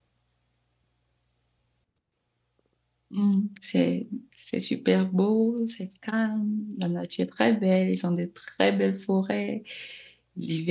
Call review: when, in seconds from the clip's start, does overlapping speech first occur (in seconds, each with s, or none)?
none